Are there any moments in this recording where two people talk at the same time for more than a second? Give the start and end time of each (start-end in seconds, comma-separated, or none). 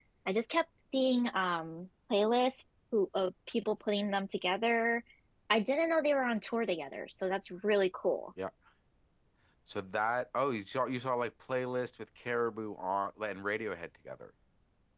none